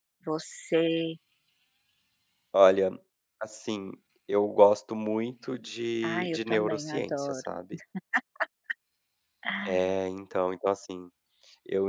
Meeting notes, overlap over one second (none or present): present